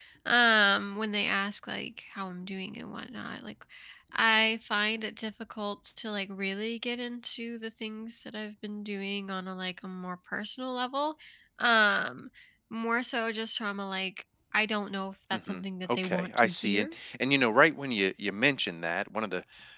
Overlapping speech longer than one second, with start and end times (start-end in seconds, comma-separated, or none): 15.3-17.0